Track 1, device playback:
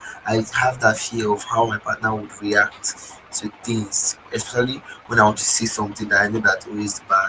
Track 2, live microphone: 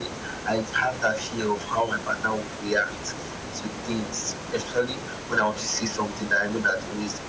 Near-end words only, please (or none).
none